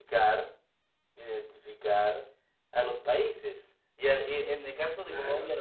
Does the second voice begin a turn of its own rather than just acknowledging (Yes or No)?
No